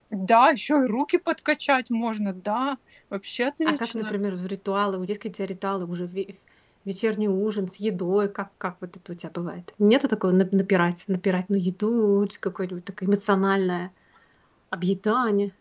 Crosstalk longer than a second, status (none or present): none